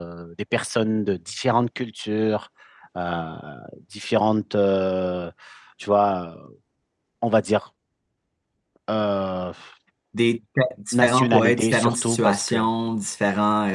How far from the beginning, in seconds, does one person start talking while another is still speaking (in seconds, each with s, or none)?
10.9 s